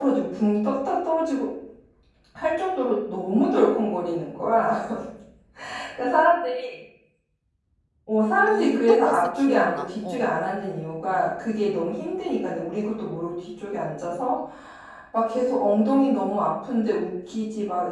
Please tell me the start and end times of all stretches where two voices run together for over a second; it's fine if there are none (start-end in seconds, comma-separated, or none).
8.5-10.3